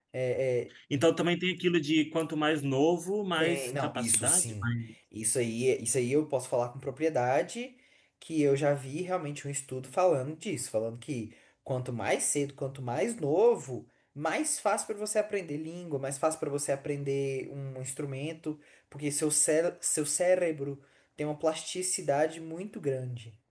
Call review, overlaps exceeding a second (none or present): present